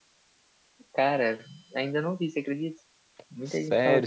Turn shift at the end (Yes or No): Yes